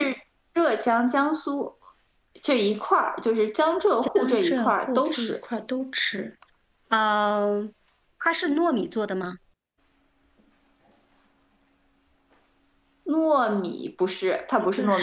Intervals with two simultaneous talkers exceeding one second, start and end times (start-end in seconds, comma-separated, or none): 4.0-5.4